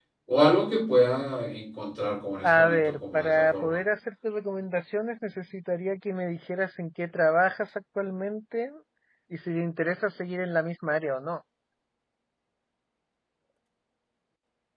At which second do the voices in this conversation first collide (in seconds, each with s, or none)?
2.4 s